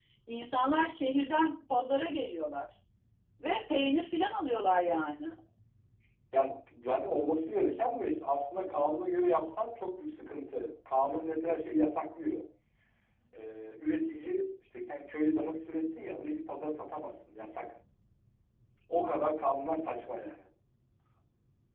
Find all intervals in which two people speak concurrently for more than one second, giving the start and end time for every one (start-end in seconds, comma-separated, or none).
none